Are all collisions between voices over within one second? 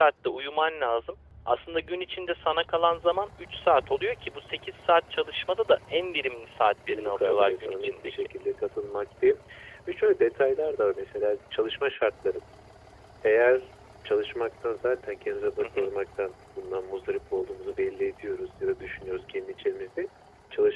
No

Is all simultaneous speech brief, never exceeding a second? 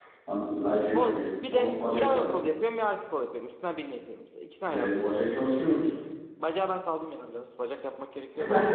No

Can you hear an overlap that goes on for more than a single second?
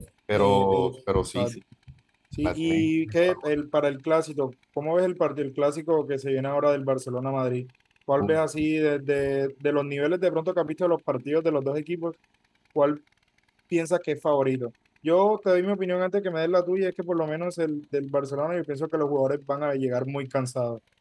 Yes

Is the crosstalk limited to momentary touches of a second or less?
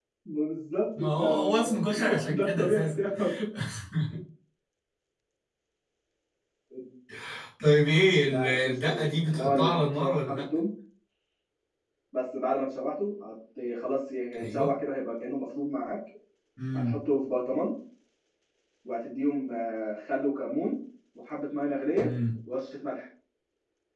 No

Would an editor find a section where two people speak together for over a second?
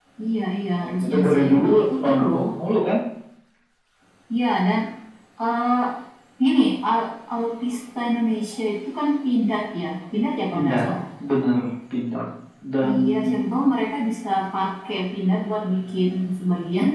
Yes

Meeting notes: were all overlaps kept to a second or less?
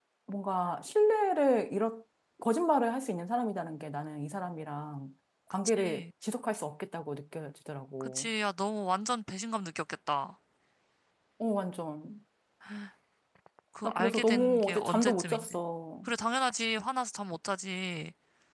No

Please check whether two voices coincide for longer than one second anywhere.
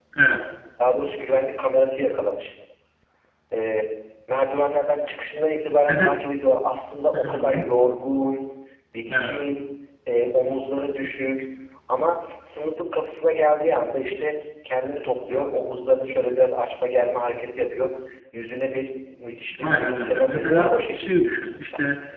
Yes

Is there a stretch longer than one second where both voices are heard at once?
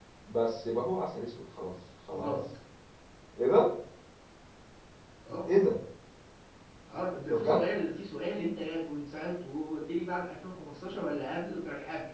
No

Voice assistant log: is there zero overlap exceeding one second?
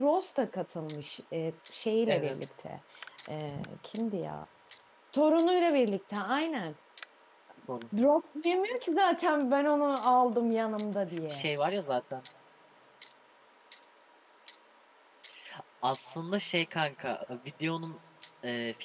Yes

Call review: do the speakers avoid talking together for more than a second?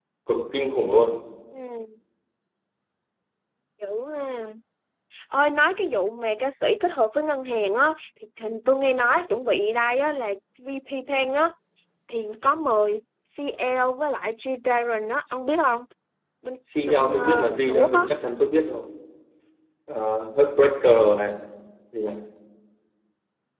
No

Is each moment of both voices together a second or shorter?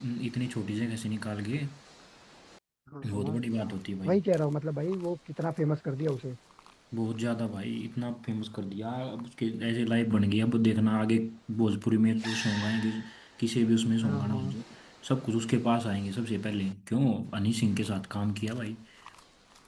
Yes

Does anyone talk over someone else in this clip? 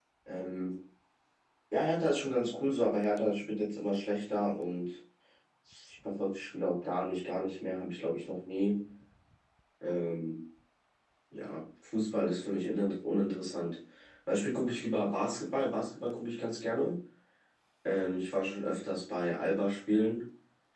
No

